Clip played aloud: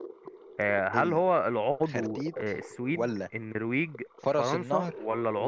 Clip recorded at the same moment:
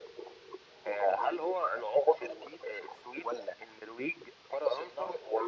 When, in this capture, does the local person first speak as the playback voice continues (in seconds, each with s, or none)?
none